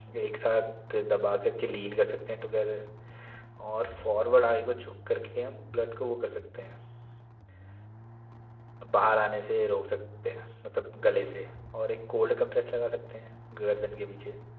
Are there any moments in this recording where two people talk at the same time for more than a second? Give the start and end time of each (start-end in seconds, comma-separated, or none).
none